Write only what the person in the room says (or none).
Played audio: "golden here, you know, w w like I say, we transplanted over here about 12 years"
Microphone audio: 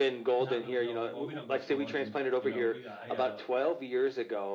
not really go, well, we don't go spelunking, you know, we got I have a